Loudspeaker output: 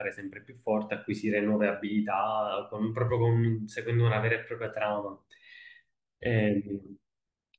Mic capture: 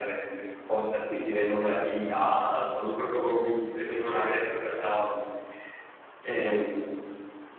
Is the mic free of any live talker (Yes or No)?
Yes